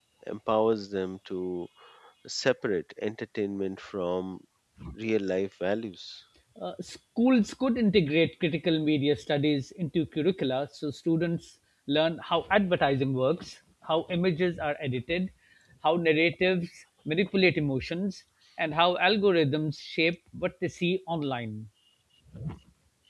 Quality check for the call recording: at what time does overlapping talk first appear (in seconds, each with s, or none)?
none